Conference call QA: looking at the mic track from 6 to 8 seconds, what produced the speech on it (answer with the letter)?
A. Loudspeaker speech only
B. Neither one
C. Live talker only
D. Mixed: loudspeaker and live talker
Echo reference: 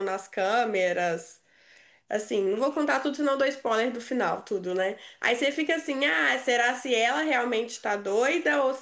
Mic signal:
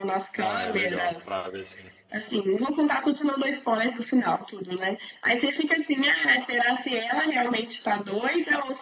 A